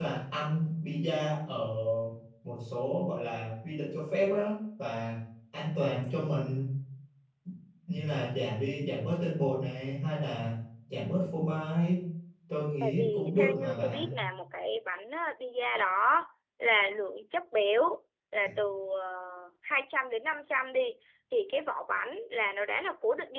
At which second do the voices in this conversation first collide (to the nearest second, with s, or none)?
13 s